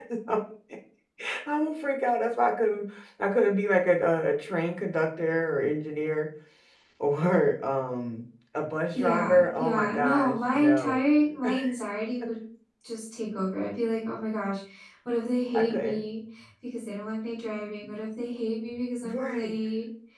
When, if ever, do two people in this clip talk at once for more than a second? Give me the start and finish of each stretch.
8.9-11.0

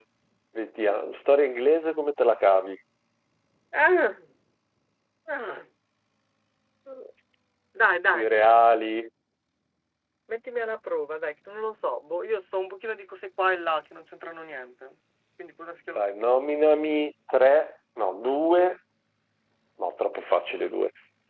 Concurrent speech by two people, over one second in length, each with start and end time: none

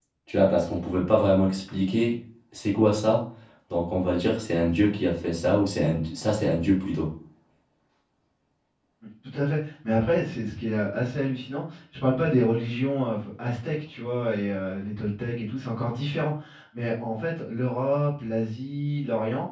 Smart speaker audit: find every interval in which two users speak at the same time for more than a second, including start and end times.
none

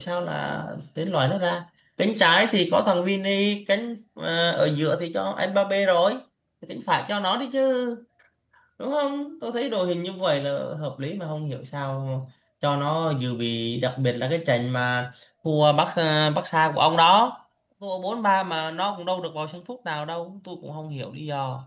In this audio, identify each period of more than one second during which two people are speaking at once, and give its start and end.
none

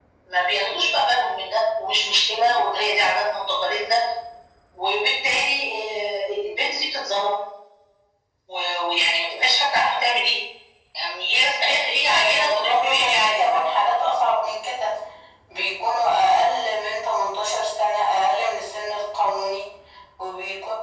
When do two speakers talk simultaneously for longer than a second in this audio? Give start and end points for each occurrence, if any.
12.1-13.7

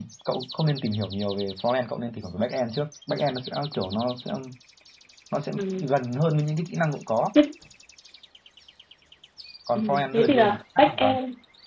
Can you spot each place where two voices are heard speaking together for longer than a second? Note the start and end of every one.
9.8-11.2

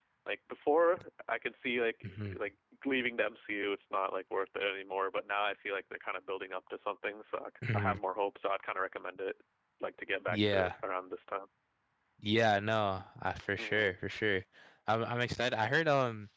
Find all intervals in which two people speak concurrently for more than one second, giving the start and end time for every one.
none

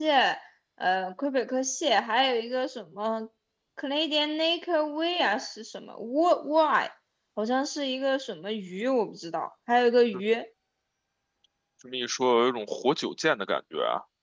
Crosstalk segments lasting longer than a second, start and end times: none

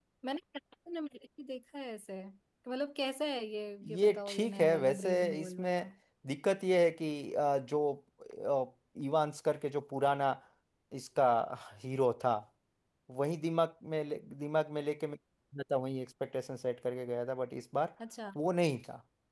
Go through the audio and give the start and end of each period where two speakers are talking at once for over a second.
3.9-5.8

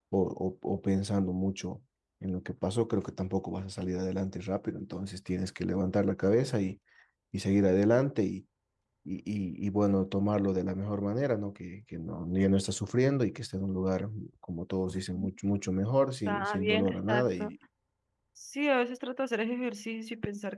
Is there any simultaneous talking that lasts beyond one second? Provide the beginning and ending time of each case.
16.3-17.5

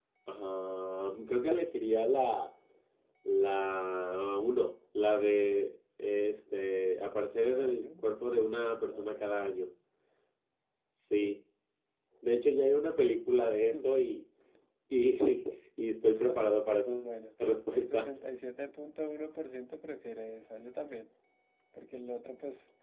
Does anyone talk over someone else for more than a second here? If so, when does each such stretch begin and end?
7.4-9.3

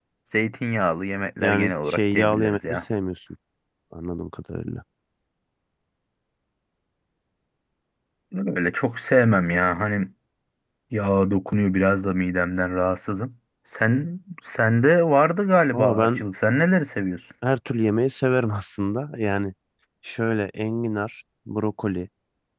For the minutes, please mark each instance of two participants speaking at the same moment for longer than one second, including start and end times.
1.4-2.8

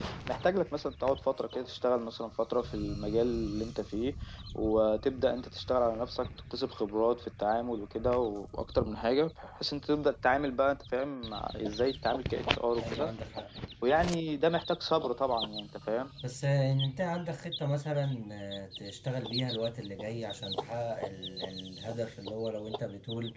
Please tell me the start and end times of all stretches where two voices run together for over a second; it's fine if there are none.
none

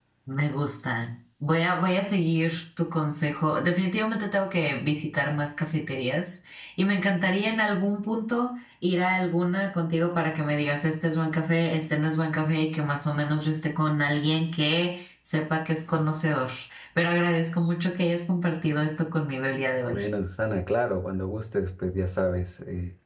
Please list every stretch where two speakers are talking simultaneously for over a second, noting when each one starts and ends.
none

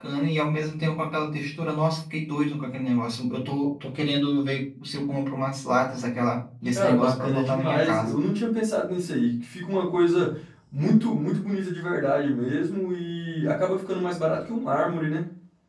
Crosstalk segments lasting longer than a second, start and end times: 6.7-8.2

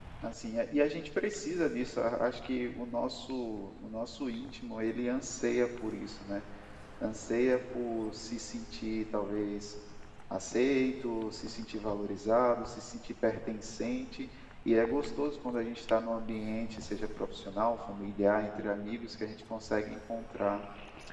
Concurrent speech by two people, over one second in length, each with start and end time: none

